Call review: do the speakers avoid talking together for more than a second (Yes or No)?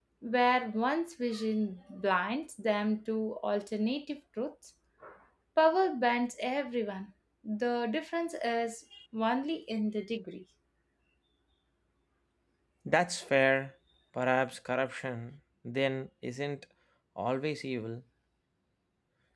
Yes